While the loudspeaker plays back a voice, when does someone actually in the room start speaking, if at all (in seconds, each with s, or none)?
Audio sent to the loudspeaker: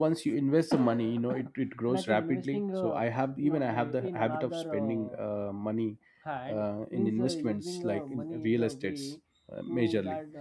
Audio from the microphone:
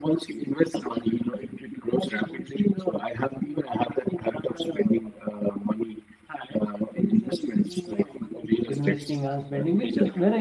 8.7 s